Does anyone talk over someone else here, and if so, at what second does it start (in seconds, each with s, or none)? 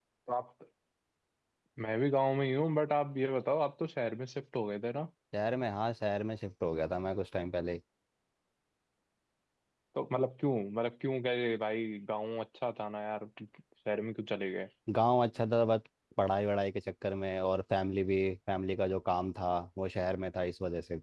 none